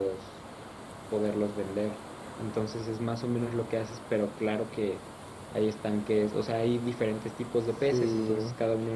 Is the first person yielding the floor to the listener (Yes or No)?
No